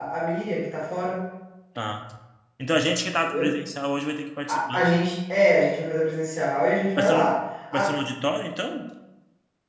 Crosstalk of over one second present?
No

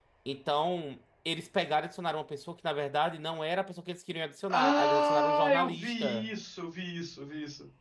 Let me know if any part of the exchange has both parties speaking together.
Yes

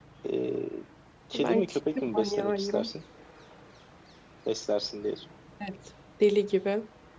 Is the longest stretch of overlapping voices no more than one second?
No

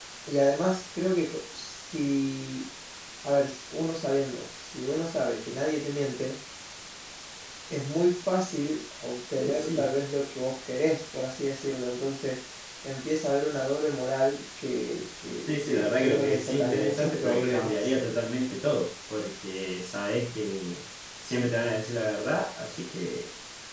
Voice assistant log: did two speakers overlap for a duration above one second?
Yes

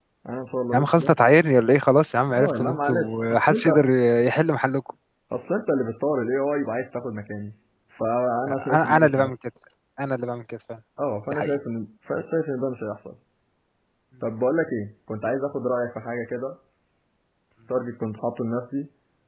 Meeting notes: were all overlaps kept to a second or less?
No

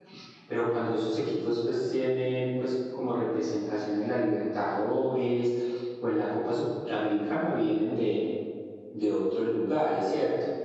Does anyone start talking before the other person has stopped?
No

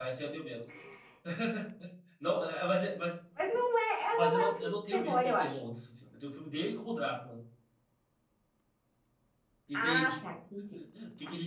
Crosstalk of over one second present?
Yes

